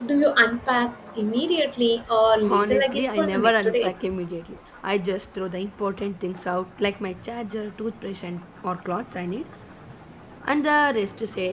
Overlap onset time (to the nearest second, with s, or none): 2 s